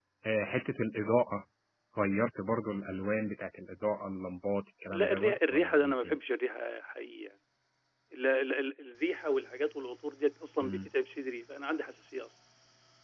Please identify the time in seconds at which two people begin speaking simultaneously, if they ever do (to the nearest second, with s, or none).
5 s